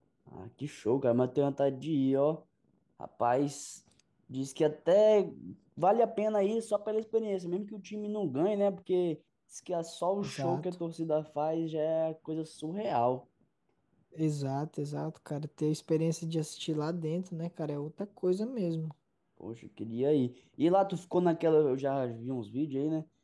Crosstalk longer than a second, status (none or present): none